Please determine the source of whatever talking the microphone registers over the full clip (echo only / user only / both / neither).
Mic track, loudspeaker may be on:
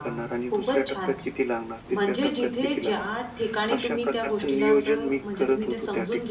both